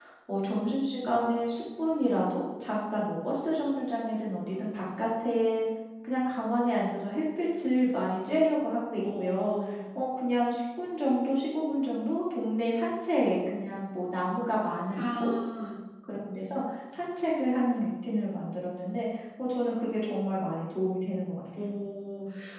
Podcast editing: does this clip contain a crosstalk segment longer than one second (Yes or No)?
No